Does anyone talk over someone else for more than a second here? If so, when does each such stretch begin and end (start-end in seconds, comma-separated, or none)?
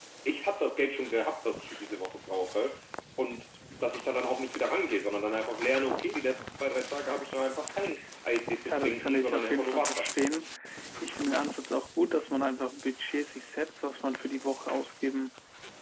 8.7-10.1